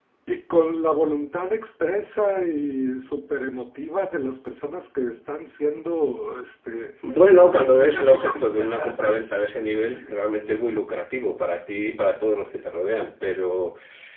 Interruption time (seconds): 7.4 s

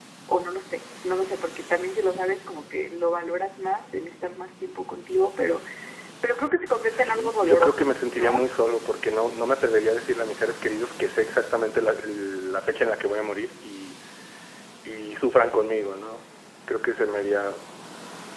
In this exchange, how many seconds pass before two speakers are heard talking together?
6.9 s

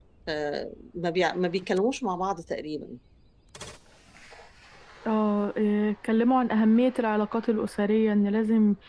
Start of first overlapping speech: none

